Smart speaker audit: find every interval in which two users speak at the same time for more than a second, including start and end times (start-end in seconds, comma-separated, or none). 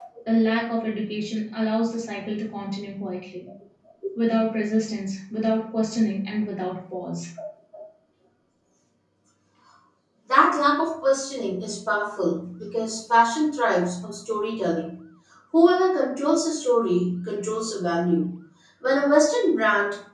none